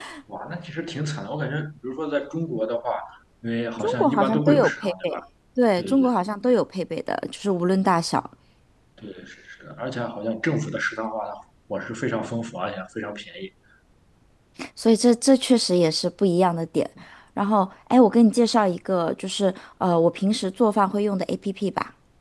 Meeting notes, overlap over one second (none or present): present